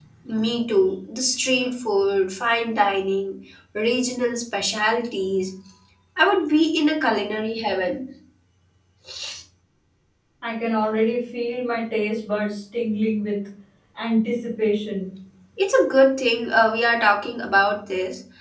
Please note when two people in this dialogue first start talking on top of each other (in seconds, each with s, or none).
none